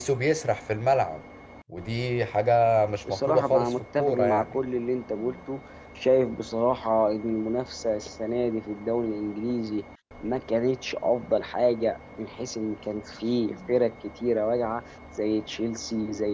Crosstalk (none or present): present